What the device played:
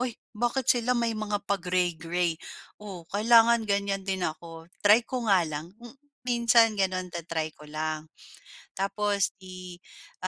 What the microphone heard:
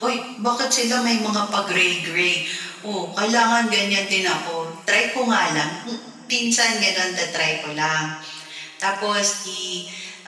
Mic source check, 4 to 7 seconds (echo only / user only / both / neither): echo only